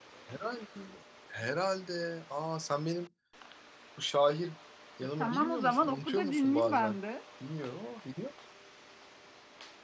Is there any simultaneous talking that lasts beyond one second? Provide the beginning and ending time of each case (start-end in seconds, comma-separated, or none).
5.2-7.0